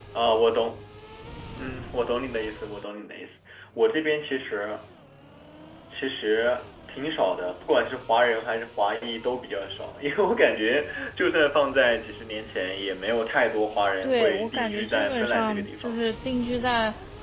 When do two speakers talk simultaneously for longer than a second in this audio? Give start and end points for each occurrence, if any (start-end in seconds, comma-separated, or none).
14.0-16.0